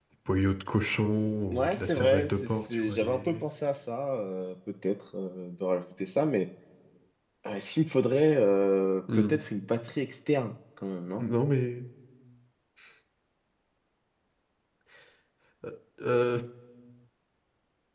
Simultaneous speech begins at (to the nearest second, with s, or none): 2 s